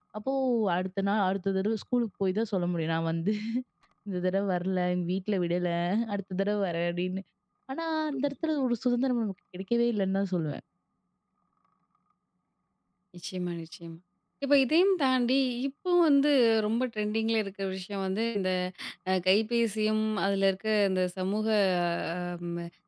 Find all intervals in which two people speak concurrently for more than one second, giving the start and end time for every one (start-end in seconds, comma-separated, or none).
none